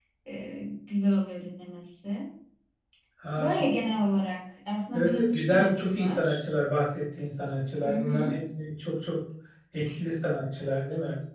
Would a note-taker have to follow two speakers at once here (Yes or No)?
Yes